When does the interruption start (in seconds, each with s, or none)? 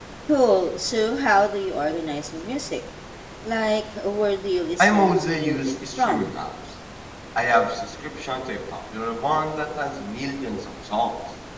4.8 s